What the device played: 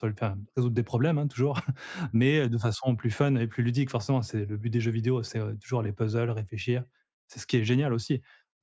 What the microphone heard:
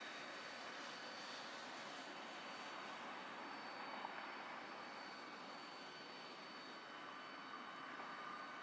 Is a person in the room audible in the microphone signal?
No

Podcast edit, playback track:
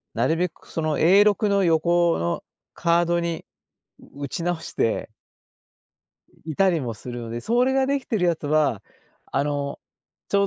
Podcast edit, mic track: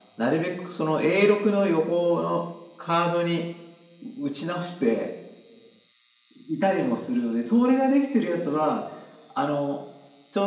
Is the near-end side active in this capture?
No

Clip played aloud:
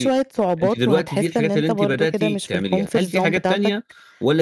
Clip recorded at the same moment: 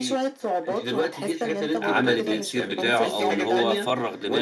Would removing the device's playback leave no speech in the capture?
No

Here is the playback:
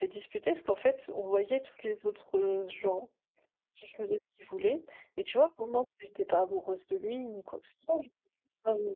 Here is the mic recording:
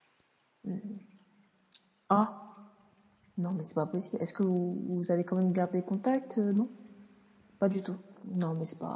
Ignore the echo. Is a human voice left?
Yes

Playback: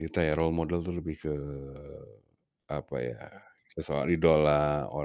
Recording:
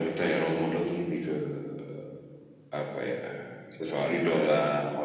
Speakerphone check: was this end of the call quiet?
Yes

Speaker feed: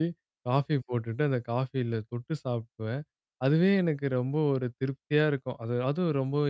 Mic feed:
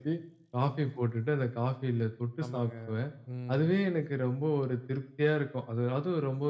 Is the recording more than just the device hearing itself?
Yes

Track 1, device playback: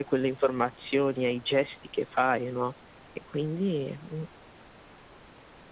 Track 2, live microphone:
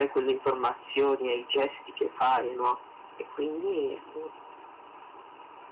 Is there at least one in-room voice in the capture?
No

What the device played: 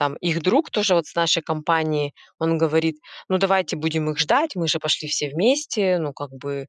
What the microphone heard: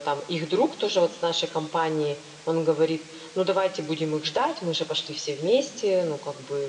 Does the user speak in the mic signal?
No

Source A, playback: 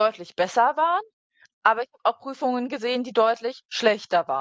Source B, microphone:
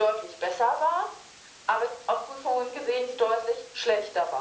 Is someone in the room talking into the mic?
No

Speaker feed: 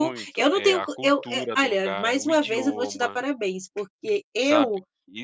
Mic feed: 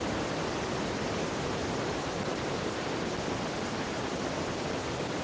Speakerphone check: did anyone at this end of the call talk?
No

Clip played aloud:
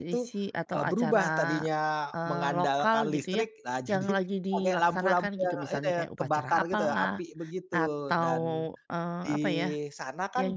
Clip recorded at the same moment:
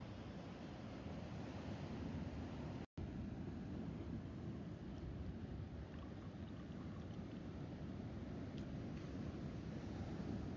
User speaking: No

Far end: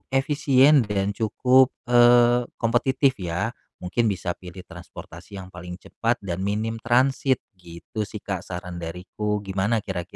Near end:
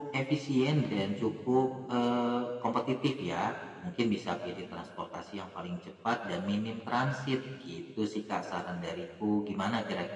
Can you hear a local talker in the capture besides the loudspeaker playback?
No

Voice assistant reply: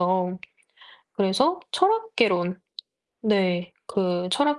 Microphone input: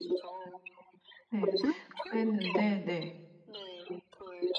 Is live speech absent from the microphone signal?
No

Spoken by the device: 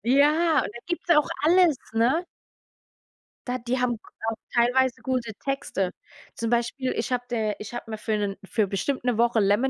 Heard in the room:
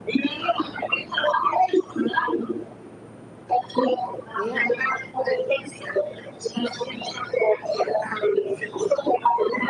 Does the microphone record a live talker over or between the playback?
Yes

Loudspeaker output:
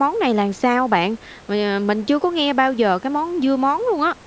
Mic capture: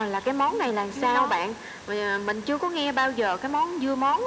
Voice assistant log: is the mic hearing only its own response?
No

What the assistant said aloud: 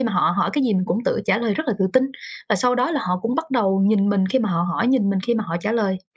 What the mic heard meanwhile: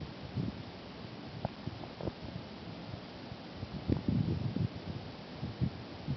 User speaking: No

